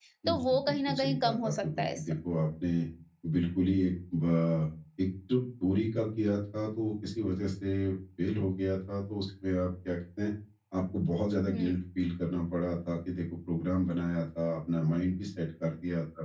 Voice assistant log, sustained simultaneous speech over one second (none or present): present